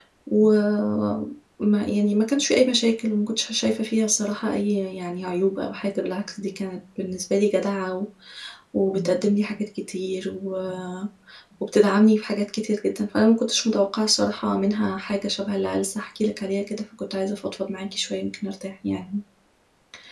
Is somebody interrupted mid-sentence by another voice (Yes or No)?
No